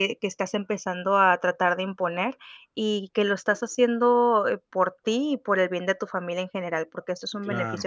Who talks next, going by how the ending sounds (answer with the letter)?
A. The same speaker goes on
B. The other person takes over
B